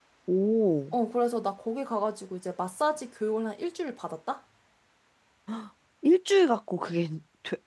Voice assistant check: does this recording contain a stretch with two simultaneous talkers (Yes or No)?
No